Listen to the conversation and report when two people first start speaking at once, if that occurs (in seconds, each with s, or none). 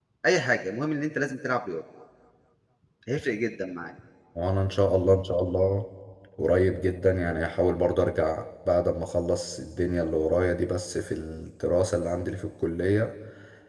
none